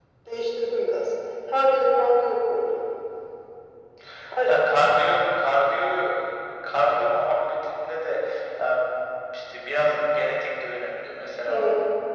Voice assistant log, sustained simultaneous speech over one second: none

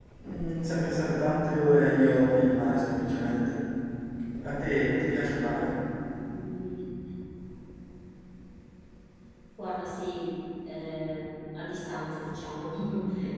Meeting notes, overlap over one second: none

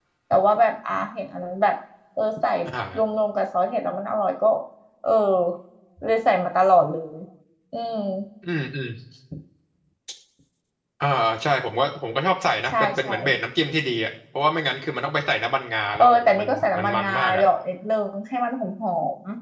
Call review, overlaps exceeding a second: present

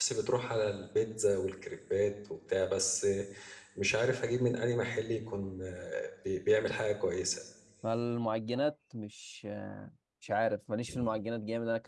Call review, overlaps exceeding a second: none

